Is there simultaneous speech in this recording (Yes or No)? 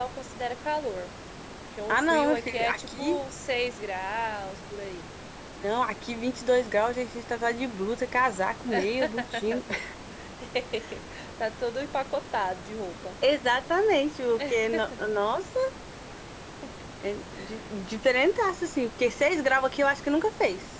Yes